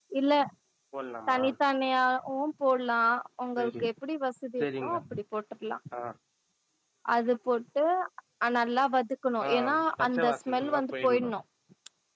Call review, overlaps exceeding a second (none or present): present